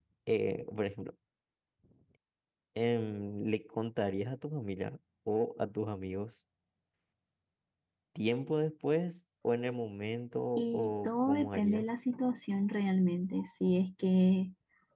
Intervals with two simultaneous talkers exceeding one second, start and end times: 10.6-11.8

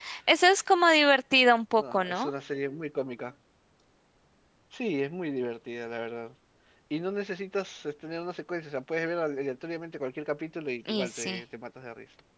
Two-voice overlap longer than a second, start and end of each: none

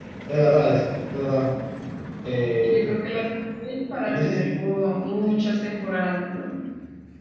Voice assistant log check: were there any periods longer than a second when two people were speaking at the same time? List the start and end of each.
none

